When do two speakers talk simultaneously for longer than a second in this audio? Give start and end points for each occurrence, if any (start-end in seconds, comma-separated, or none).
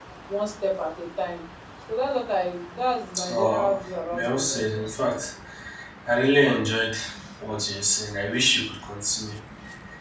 3.3-4.9